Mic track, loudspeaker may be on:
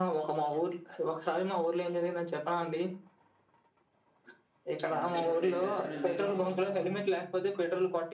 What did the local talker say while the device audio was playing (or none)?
ఎంతసేపట్లో అయింది దర్శనం మీకు